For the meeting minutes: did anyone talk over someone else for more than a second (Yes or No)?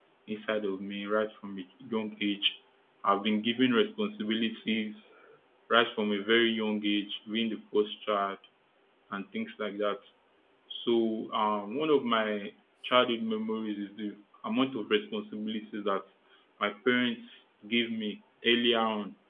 No